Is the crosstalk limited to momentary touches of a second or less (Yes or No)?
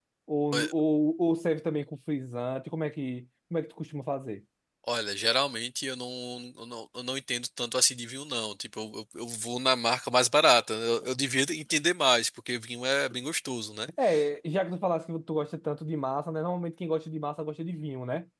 Yes